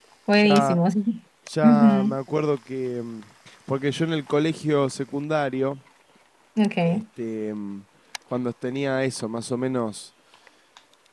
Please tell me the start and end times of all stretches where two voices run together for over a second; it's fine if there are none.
none

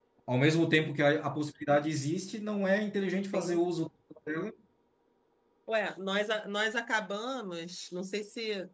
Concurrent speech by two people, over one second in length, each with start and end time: none

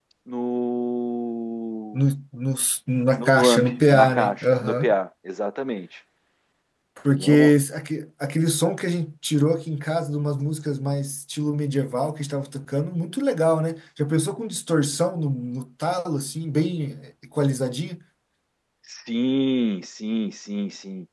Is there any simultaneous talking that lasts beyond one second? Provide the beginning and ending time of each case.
3.2-4.9

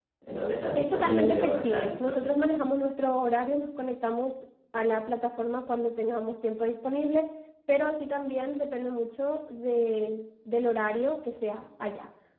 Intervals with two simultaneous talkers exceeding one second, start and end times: 0.8-2.4

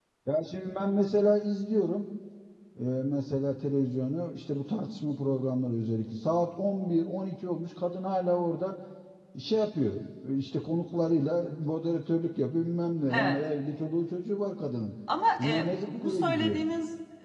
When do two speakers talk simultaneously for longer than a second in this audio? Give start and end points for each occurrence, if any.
15.4-16.6

